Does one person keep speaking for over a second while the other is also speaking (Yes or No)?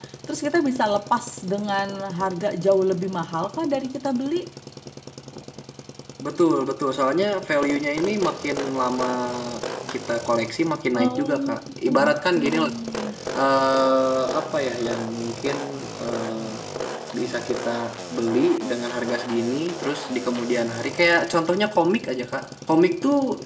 Yes